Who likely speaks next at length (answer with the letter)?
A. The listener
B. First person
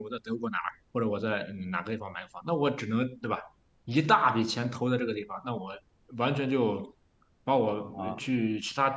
B